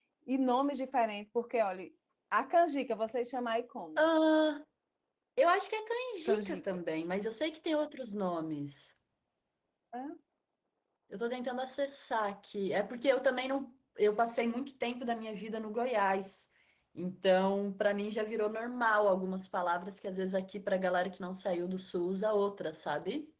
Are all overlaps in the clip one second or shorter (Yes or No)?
Yes